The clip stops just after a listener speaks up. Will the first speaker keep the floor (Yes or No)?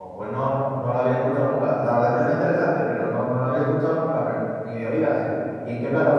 No